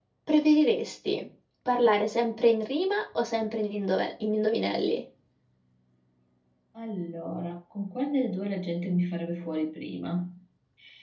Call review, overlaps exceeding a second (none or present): none